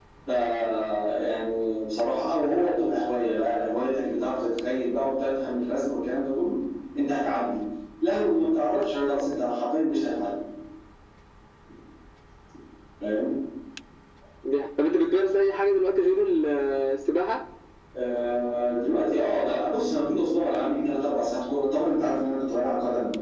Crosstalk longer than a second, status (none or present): none